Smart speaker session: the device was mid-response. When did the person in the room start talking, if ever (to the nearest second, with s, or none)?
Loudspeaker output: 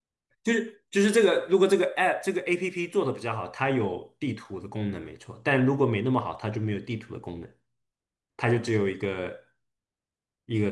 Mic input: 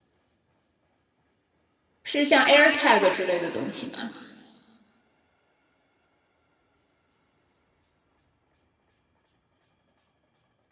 2 s